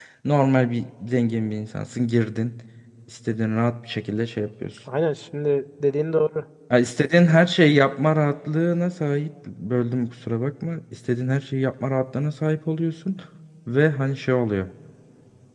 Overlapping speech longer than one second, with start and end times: none

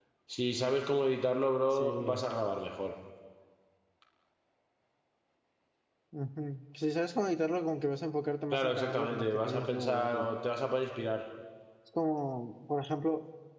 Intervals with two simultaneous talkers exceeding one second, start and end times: 8.5-10.3

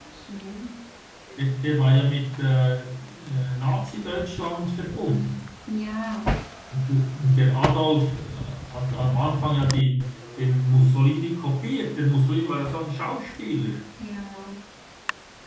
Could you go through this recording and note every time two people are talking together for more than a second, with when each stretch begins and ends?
none

